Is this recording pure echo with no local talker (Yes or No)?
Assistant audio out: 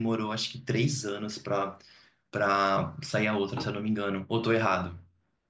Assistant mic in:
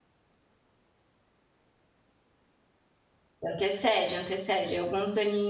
No